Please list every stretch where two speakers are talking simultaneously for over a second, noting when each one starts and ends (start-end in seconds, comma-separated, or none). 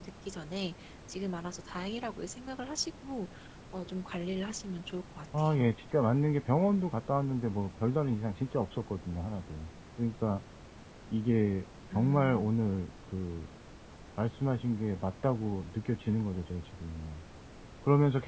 none